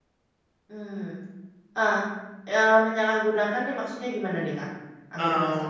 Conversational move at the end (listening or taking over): taking over